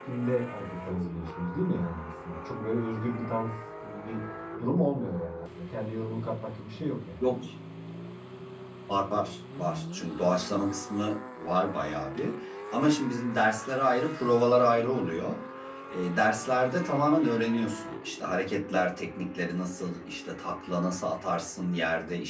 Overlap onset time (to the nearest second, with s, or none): none